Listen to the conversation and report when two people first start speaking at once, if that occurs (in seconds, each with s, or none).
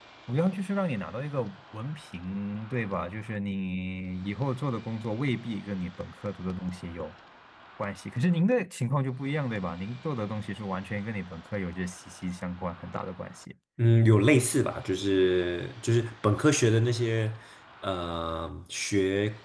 none